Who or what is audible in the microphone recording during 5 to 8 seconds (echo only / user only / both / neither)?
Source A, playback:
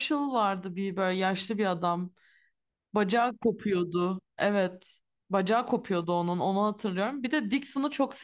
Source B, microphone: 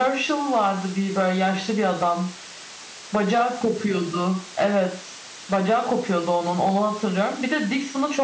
echo only